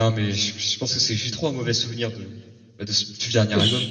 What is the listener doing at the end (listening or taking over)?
taking over